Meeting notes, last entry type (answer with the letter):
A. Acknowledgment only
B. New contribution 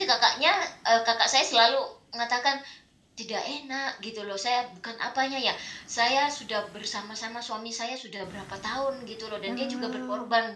A